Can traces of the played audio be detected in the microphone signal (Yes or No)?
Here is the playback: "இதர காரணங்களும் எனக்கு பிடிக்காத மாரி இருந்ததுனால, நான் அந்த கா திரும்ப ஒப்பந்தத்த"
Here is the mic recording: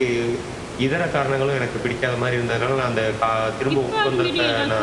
Yes